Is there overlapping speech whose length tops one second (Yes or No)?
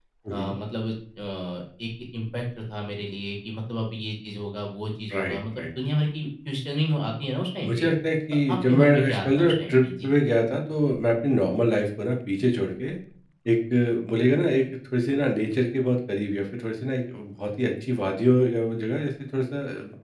Yes